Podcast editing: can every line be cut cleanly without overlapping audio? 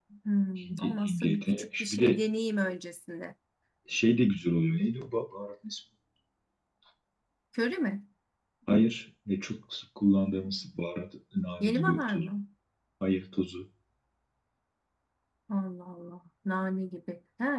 No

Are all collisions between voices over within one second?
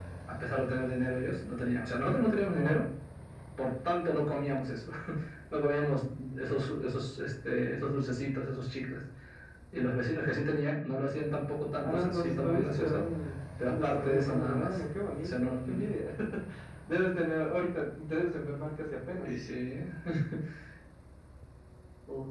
No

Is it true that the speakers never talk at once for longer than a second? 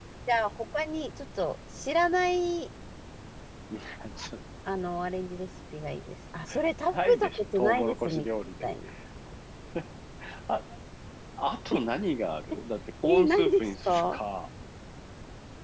No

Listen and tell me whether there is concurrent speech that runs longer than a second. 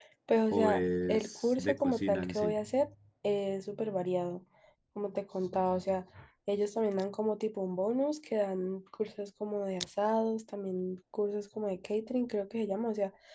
Yes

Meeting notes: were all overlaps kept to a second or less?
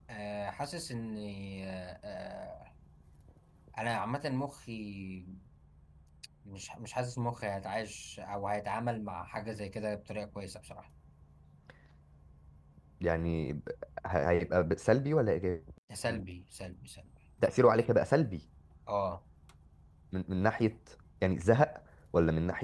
Yes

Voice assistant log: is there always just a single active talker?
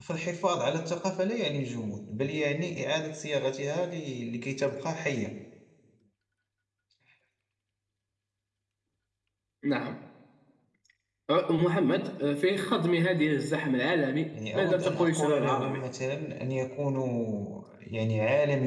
No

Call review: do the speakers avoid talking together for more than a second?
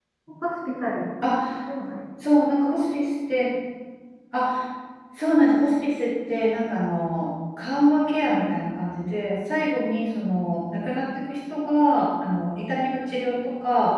Yes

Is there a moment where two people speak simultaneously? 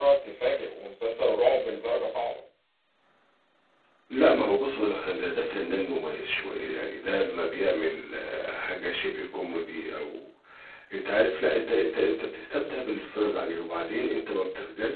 No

